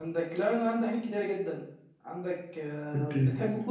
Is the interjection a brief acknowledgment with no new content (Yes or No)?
Yes